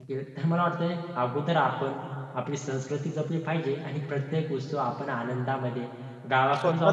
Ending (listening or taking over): listening